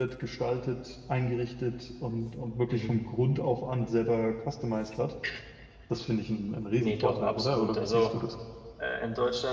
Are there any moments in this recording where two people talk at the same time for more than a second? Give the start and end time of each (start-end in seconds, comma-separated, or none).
6.8-8.1